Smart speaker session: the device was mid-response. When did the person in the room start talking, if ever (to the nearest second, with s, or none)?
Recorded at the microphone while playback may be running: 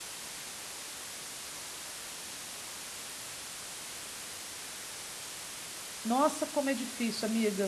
6 s